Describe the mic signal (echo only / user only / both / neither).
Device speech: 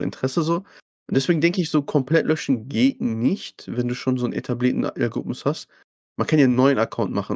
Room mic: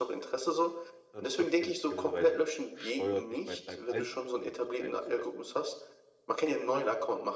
both